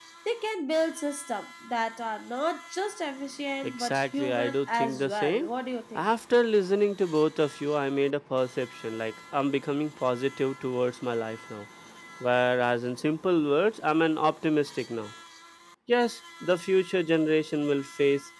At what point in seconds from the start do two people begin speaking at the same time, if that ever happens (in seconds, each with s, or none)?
3.6 s